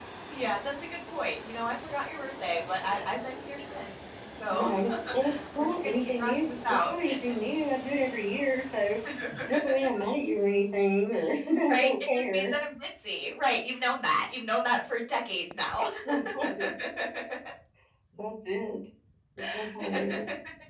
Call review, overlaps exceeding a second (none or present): present